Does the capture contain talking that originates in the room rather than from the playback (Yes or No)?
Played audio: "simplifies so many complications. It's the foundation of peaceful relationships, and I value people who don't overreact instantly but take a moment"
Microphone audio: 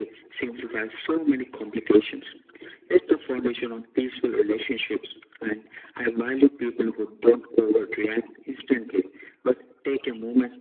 No